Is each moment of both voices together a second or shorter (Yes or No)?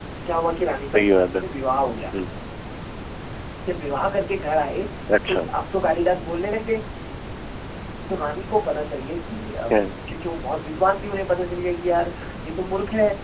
Yes